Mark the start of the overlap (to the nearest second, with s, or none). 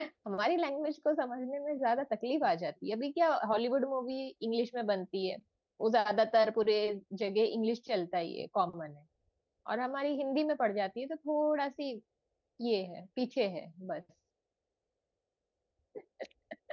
none